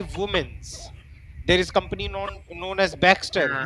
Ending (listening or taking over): listening